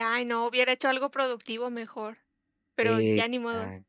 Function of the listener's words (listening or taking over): taking over